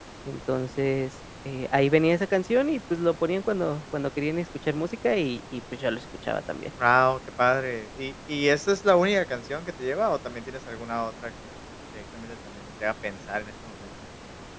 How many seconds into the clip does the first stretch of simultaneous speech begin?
none

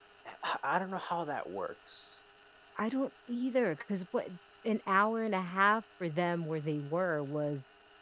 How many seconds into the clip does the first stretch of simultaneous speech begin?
none

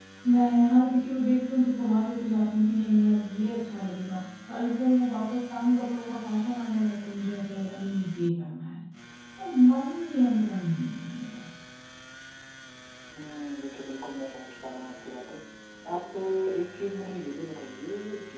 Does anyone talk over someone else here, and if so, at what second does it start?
none

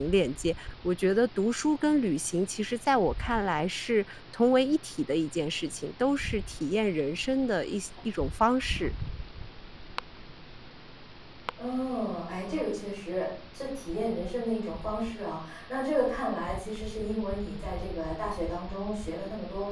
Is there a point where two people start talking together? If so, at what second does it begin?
none

